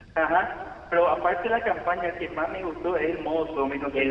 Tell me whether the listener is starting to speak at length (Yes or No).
Yes